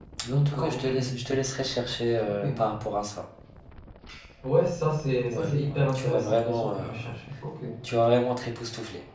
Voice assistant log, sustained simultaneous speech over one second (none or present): present